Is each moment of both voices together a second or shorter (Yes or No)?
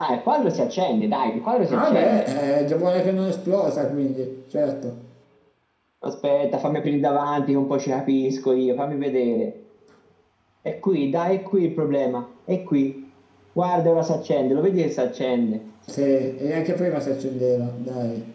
Yes